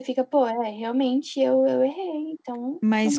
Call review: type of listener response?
taking over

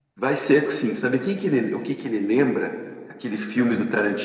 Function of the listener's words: listening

